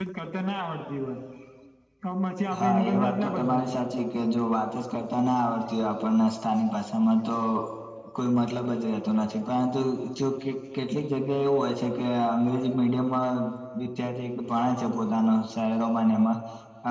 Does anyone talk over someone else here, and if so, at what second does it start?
3 s

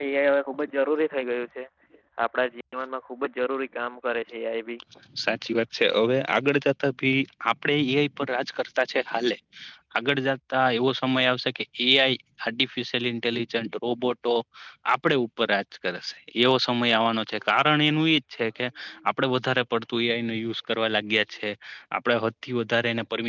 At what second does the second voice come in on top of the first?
none

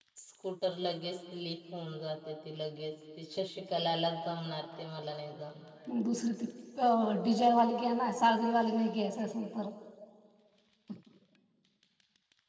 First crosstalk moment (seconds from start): none

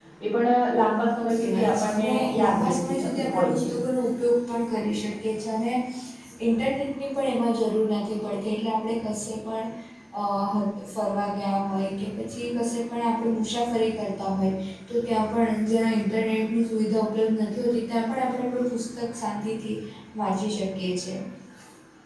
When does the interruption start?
1 s

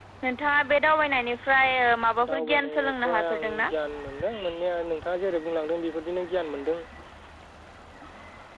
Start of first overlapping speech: 2 s

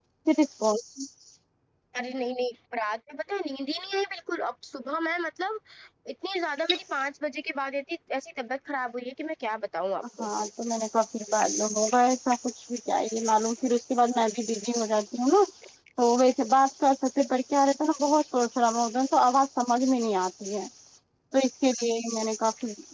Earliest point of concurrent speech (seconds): none

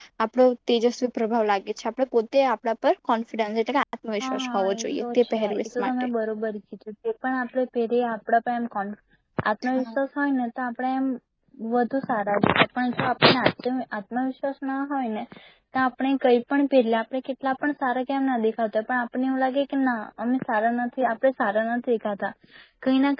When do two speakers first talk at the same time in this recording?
4 s

